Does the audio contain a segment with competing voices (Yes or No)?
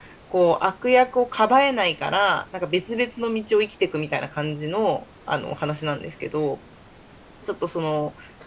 No